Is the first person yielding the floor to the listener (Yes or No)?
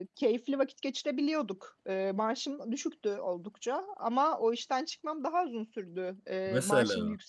No